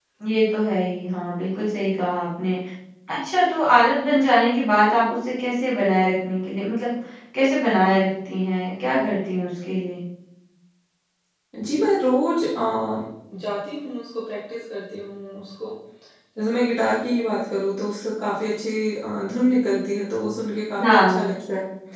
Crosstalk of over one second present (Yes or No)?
No